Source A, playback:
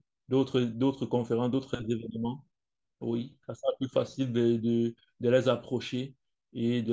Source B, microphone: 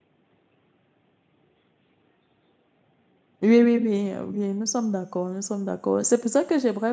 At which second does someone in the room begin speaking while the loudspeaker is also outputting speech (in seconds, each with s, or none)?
3.4 s